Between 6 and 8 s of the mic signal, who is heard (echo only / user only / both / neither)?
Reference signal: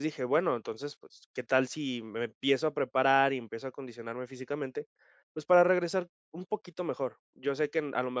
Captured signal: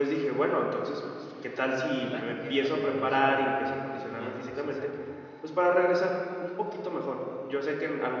echo only